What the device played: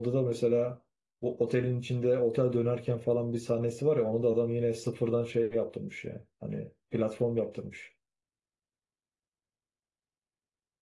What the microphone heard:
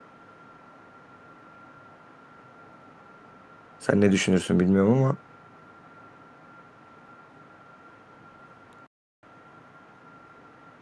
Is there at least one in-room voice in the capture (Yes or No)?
Yes